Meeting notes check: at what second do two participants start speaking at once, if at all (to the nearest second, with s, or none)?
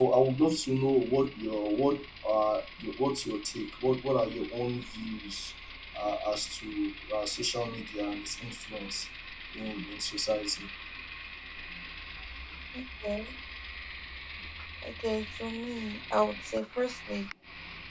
none